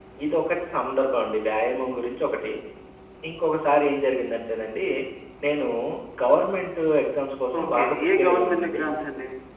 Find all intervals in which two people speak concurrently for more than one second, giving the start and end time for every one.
7.6-8.8

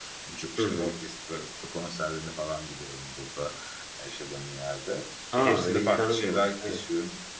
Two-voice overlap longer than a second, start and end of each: 5.4-6.8

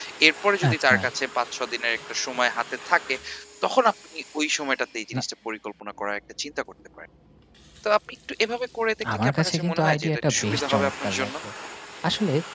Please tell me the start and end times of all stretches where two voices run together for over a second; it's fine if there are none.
9.1-11.3

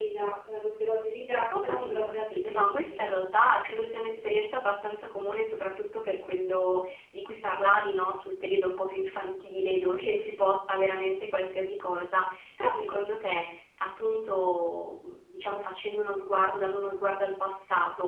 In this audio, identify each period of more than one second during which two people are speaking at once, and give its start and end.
1.6-3.1

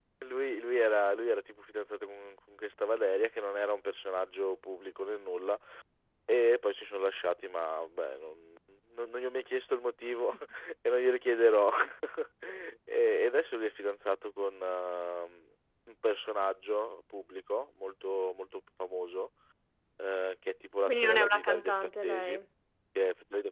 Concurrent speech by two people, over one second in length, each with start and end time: 20.8-22.4

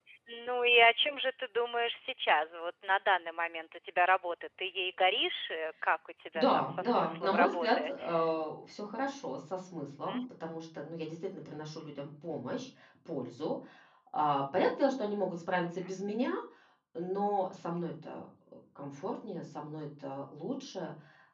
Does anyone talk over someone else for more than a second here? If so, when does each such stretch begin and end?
6.3-7.9

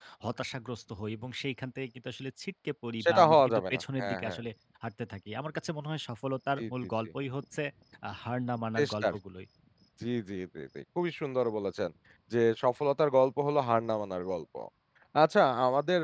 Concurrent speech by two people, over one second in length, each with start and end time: 3.0-4.4

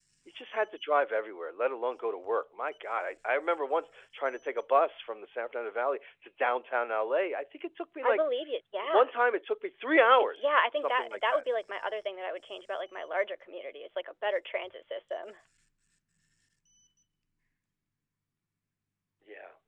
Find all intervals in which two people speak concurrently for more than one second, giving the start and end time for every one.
10.2-11.4

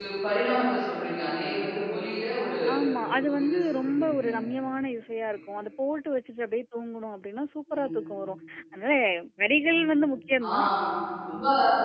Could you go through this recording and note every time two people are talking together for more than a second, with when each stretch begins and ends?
3.0-4.3

